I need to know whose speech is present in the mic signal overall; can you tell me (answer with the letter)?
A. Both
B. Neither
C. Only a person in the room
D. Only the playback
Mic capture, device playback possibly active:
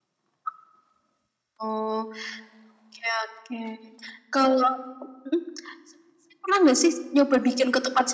D